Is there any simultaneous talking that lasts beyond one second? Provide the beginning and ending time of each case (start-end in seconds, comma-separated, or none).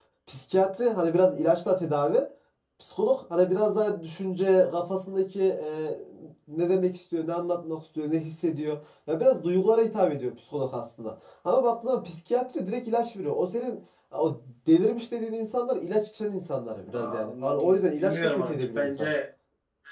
16.9-19.1